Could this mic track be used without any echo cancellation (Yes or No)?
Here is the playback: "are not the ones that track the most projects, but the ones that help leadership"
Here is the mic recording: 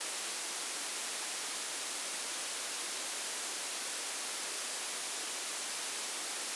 Yes